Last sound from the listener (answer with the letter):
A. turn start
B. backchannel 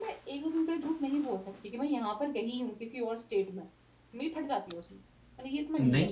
A